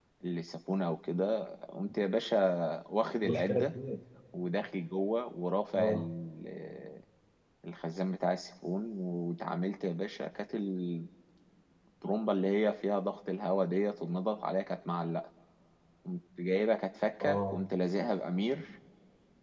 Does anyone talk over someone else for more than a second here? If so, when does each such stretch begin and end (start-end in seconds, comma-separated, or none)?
none